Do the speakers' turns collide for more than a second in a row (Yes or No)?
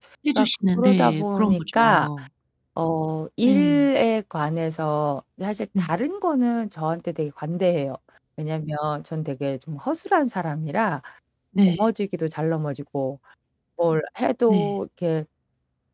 Yes